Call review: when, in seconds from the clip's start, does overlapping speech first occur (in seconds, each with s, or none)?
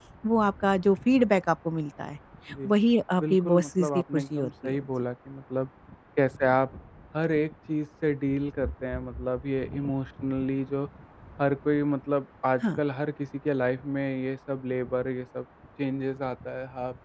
3.2 s